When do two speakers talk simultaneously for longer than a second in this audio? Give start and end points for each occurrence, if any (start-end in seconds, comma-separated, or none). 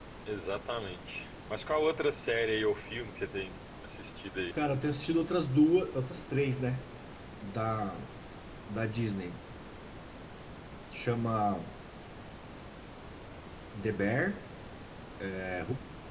none